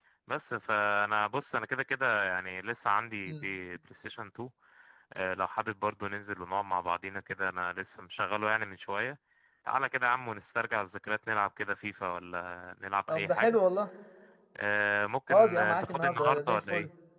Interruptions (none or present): present